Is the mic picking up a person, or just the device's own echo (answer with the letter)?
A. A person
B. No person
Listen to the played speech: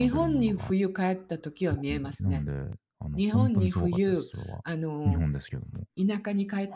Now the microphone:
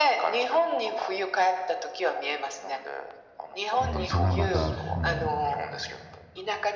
A